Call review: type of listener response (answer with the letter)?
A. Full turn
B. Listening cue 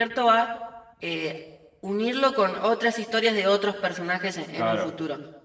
A